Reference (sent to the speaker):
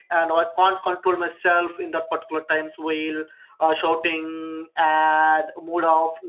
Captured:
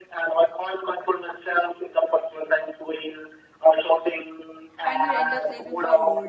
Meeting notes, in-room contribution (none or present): present